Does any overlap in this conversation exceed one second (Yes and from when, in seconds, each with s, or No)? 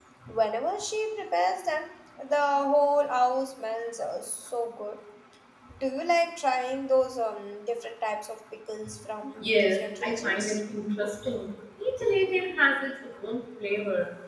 Yes, from 9.4 s